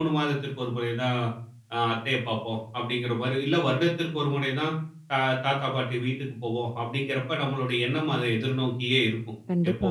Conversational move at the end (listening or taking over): listening